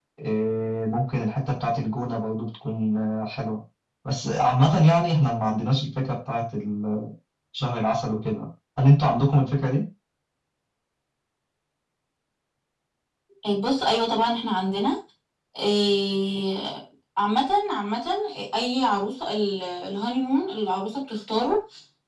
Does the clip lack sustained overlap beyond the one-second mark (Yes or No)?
Yes